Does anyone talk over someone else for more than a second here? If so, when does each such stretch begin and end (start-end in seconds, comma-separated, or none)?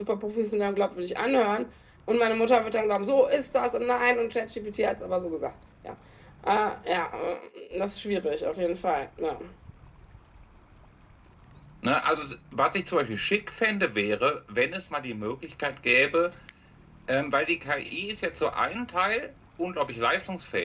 none